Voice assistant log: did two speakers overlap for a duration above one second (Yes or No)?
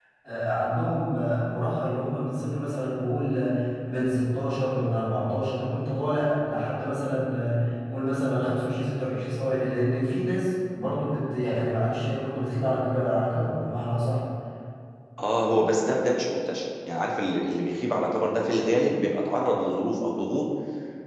No